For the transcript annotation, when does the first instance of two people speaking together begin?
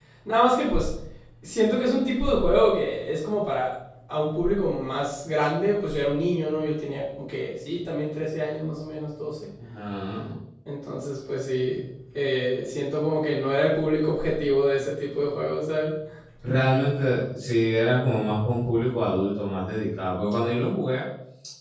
none

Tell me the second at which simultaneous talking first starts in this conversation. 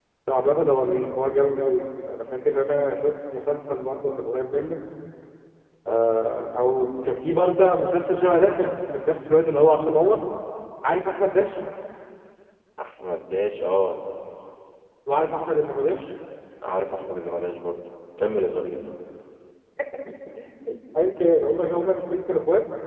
none

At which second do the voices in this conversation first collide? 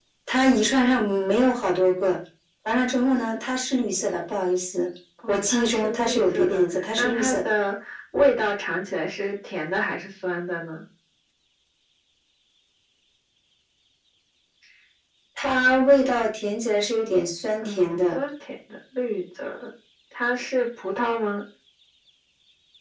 5.3 s

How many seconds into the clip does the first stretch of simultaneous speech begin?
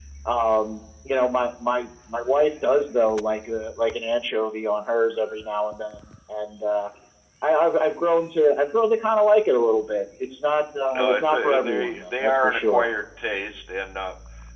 10.9 s

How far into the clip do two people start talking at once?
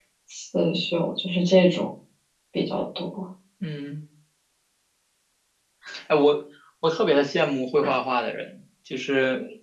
none

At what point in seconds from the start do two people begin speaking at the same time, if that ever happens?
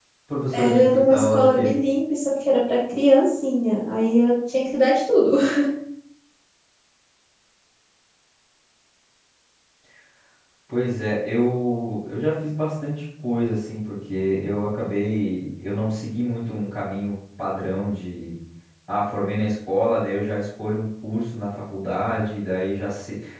0.5 s

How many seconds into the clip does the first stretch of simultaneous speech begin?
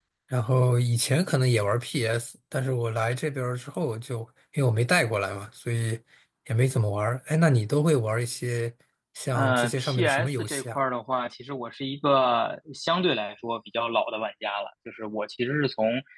9.3 s

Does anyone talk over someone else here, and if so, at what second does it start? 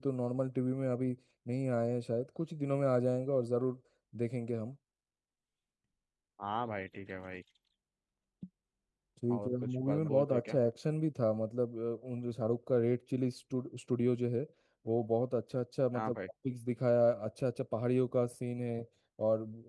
9.3 s

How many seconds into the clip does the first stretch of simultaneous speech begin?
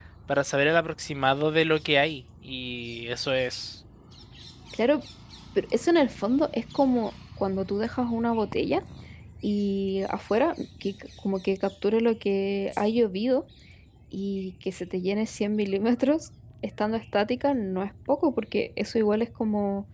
none

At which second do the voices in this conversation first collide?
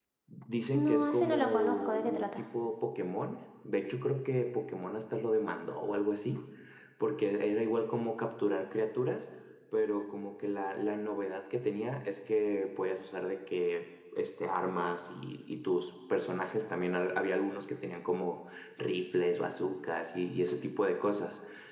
0.7 s

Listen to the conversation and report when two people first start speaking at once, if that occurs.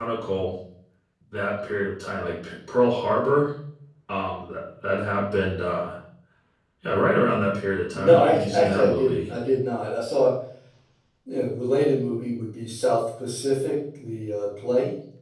7.9 s

